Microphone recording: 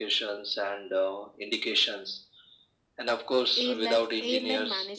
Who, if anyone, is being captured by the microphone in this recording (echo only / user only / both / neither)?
both